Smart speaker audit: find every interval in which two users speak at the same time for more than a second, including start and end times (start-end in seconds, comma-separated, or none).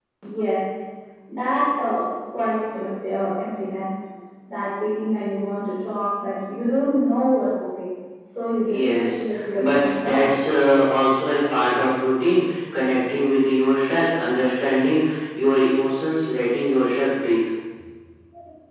8.7-10.3